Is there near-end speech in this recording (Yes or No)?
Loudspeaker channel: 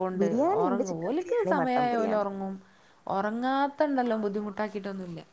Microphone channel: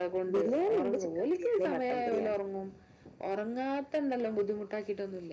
No